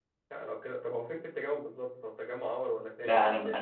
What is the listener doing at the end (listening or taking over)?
taking over